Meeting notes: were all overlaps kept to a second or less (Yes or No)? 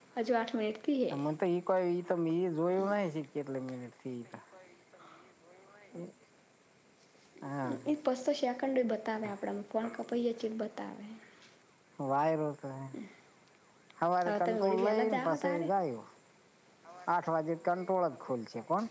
No